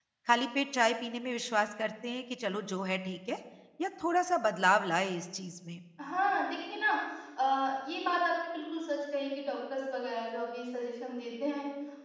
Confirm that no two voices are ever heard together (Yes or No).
Yes